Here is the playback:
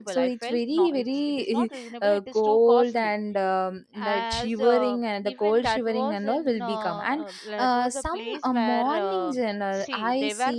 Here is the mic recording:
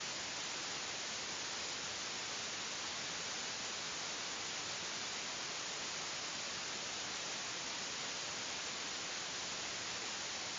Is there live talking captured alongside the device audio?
No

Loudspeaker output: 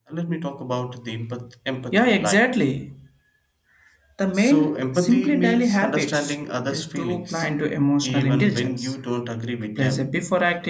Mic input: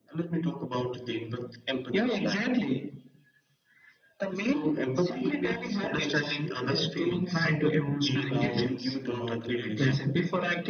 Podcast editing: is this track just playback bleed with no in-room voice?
No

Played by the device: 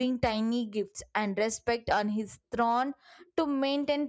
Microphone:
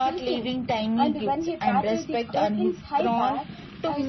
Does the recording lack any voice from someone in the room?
No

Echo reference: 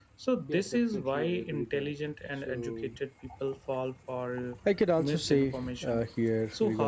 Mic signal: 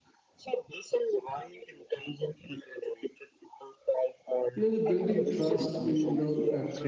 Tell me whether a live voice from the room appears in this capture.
Yes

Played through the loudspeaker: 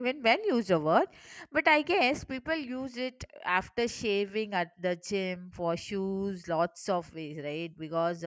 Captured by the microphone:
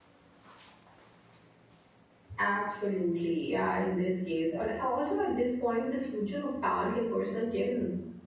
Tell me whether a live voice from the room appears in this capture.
Yes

